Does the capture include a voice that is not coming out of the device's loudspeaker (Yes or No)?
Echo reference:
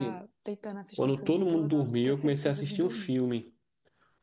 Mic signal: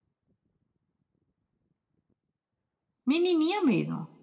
Yes